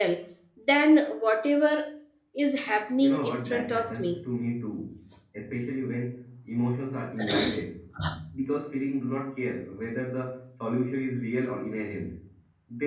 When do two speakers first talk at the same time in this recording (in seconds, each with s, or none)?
3.0 s